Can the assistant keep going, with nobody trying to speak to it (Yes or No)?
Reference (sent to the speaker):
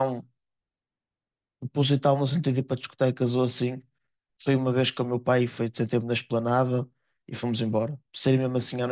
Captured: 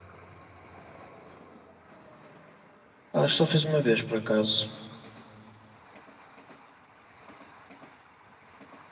No